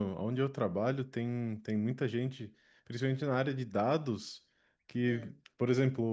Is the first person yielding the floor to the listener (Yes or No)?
No